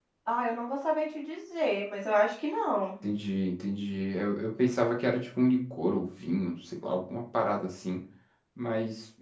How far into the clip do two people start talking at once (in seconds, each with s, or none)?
none